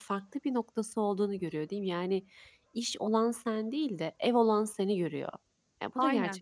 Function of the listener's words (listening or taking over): taking over